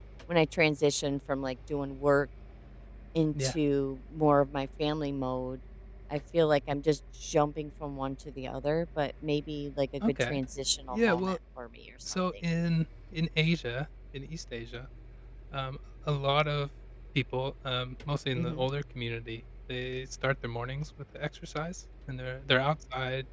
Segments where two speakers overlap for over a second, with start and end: none

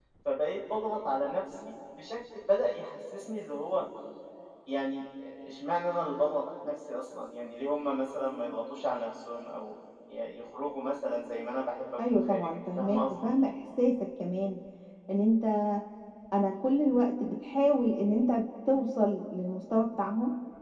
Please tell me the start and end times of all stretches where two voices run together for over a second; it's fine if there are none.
12.1-13.3

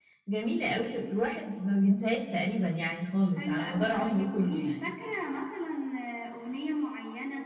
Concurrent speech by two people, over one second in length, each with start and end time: 3.4-4.7

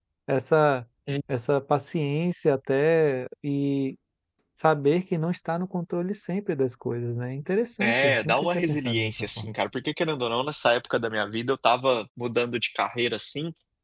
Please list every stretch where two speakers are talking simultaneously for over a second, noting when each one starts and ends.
7.8-9.5

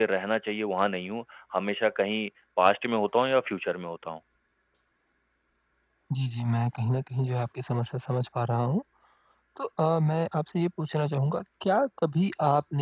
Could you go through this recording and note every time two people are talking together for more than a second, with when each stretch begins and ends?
none

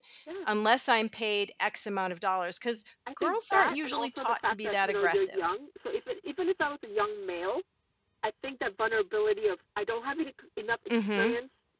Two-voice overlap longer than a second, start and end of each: 3.2-5.5

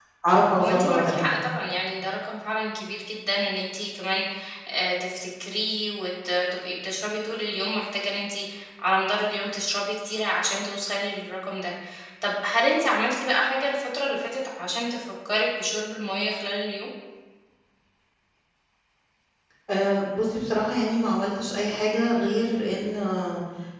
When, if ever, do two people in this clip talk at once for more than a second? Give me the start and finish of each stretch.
none

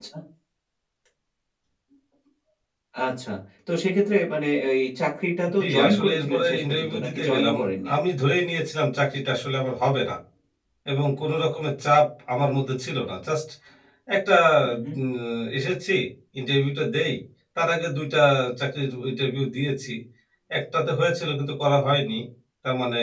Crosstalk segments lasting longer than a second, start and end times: 5.6-7.5

